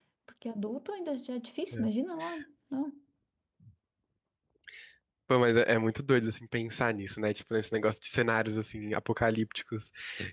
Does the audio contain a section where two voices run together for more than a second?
No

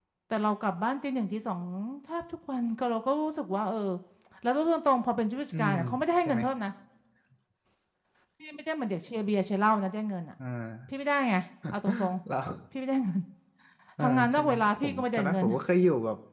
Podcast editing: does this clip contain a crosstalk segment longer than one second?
Yes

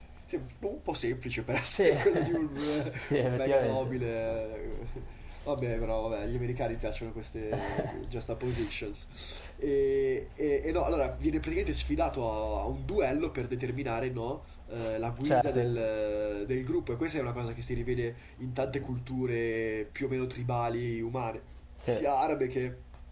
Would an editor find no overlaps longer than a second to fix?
No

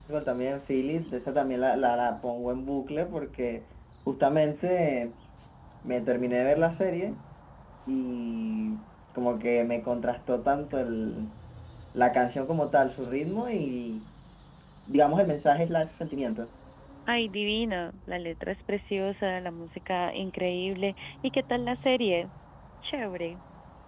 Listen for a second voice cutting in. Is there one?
No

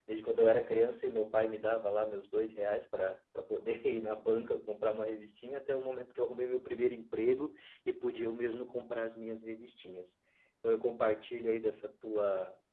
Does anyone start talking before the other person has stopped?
No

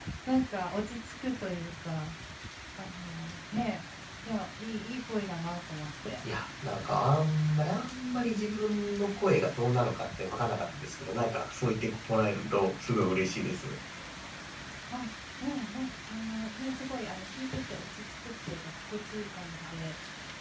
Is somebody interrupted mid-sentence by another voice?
No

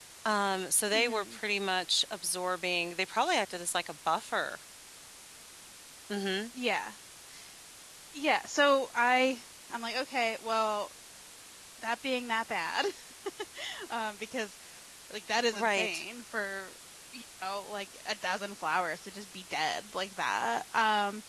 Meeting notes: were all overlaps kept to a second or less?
Yes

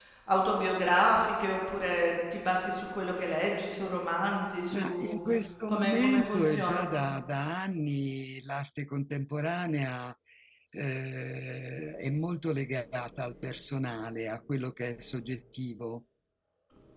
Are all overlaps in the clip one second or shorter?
No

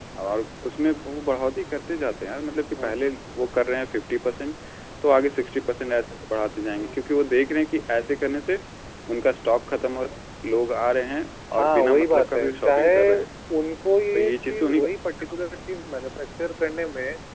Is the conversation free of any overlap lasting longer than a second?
No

